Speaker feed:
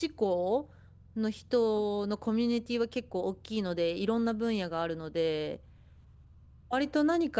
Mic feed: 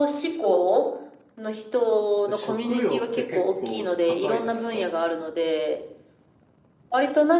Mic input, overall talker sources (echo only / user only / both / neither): both